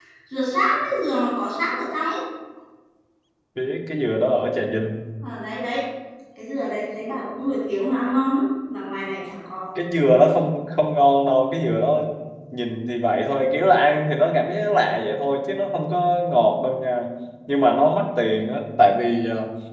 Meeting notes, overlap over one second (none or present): none